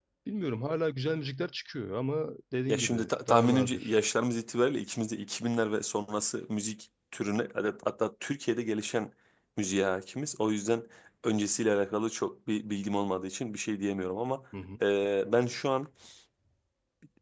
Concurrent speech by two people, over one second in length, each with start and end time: 2.7-4.0

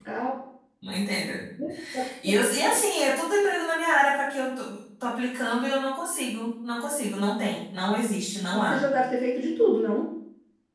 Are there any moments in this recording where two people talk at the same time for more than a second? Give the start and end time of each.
none

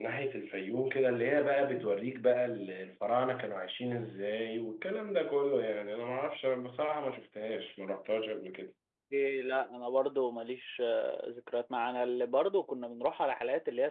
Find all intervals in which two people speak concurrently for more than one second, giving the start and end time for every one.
none

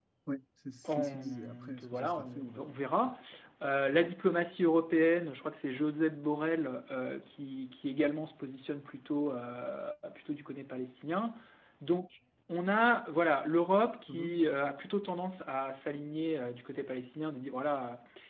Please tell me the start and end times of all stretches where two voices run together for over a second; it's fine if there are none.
1.0-2.7

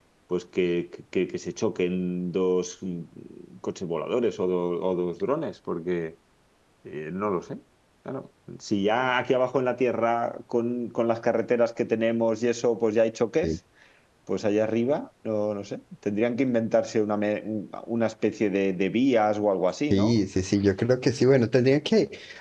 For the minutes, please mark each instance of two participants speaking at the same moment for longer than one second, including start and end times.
none

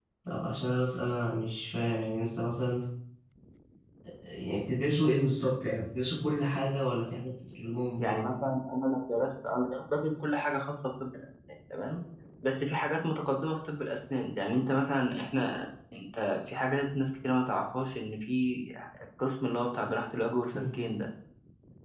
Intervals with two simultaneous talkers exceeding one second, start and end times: none

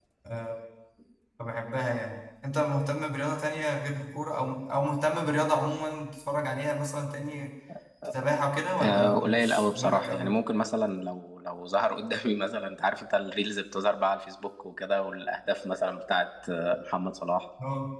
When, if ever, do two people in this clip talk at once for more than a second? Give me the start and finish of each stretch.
8.8-10.3

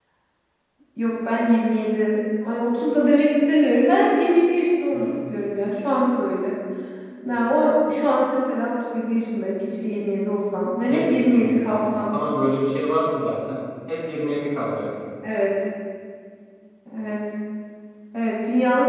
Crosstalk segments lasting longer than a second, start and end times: 10.9-12.1

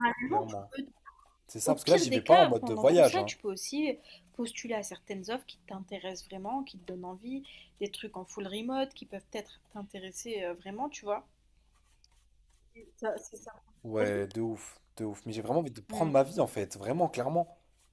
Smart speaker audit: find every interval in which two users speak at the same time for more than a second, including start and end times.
1.6-3.3

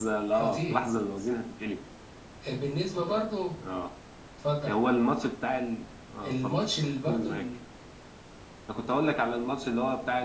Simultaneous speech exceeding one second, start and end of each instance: none

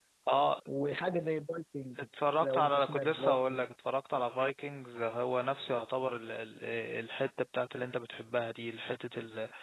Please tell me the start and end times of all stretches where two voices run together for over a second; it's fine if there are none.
2.4-3.6

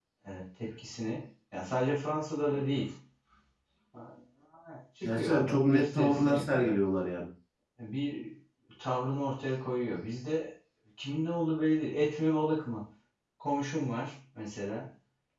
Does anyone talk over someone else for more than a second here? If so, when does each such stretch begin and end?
5.0-6.8

